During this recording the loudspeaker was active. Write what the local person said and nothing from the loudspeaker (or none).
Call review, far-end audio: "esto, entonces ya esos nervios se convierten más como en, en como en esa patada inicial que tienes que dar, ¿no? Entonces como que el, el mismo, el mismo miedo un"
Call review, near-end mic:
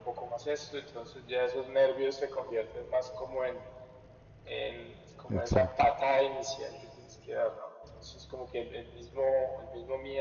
Exacto.